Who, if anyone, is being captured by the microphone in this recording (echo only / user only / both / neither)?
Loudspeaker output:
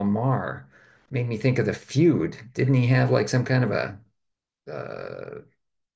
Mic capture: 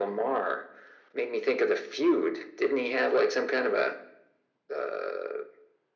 echo only